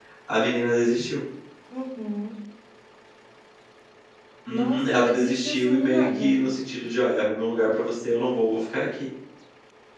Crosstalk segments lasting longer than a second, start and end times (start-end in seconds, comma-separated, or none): 4.5-6.4